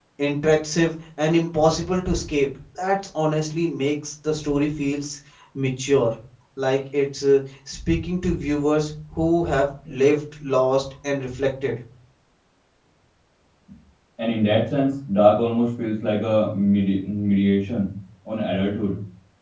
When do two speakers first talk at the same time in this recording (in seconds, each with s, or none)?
none